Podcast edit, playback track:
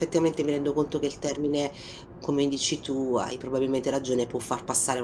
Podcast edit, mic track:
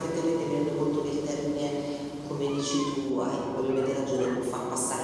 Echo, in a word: present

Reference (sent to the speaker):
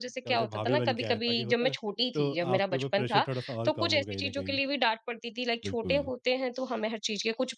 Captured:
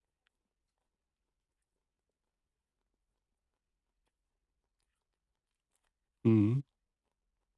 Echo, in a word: none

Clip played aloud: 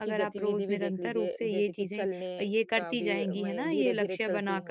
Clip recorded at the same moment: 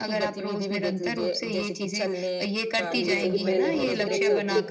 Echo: present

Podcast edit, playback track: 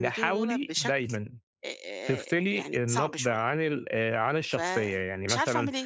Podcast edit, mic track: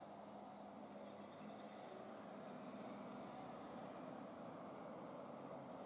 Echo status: none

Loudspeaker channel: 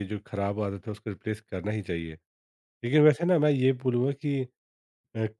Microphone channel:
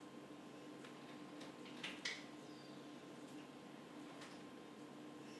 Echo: none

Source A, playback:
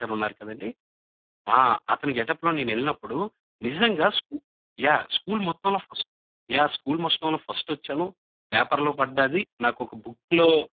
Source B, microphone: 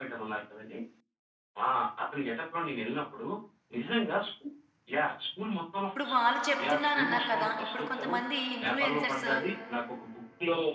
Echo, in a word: present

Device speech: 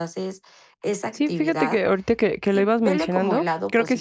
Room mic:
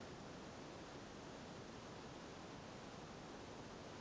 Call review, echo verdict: none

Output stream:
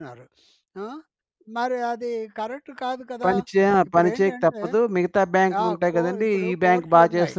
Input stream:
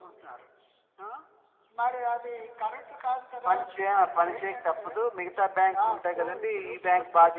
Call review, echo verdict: present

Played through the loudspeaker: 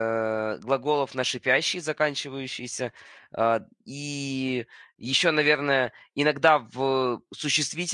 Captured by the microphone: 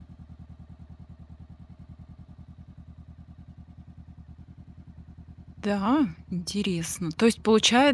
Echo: none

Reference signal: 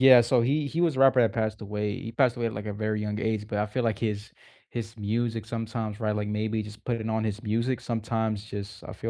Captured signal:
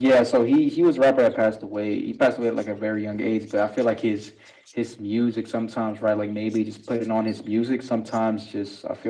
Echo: present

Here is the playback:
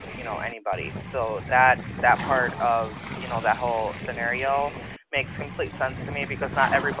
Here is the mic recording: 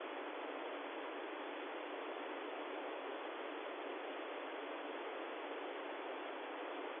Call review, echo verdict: none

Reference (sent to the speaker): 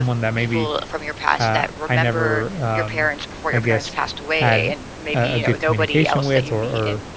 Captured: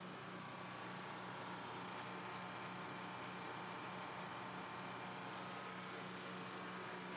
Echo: none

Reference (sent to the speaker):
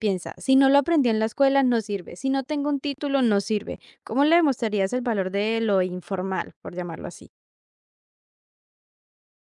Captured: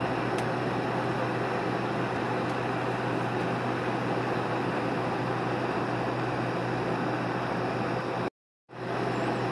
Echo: none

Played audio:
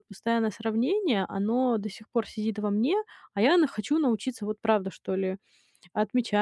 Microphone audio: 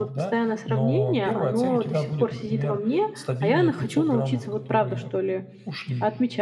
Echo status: present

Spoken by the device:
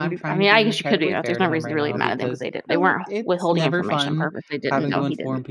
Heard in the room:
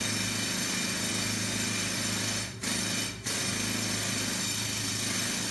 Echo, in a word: none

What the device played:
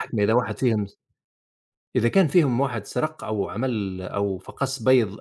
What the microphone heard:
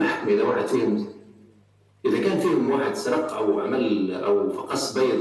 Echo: present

